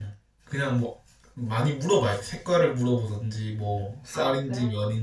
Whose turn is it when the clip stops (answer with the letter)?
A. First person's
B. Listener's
A